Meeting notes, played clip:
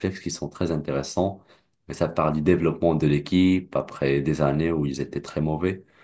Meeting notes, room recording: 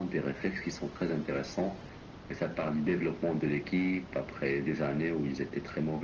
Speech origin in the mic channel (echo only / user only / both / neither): echo only